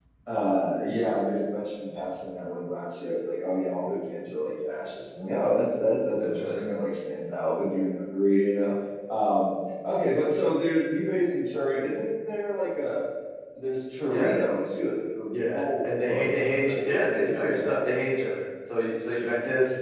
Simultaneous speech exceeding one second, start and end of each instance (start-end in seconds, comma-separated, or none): 15.5-17.8